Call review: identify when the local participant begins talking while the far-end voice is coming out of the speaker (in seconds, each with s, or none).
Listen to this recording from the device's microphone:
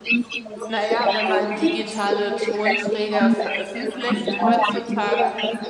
0.7 s